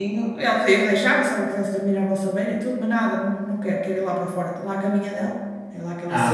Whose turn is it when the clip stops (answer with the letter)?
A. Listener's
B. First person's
A